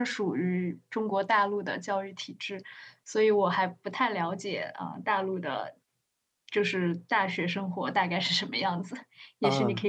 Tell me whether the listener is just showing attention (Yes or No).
No